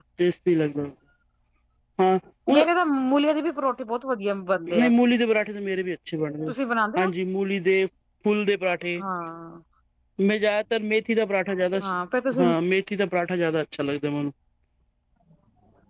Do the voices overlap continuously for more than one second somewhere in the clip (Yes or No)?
No